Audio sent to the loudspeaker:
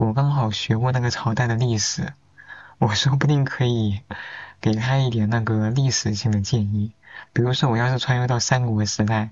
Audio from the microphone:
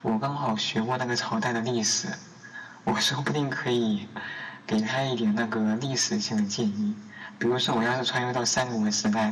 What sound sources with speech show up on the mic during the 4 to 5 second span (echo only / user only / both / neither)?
echo only